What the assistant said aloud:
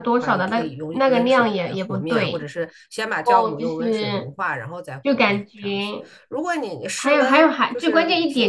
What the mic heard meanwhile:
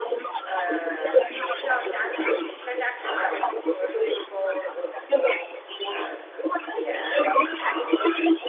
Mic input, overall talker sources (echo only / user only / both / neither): both